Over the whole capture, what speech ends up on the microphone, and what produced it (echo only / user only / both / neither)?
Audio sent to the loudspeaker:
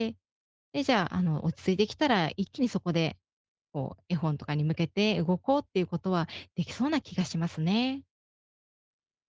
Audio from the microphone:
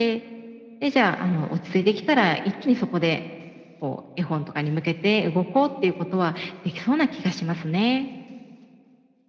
echo only